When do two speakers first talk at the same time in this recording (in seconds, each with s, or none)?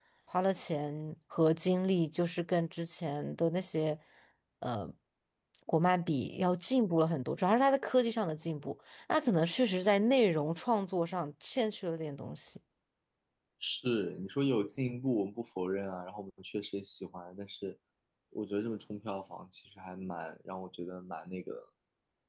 none